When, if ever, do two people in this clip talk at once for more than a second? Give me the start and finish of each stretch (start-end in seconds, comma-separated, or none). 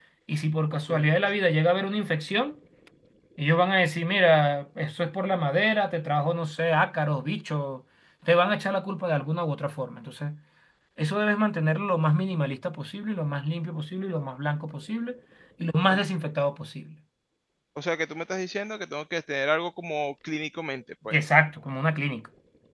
none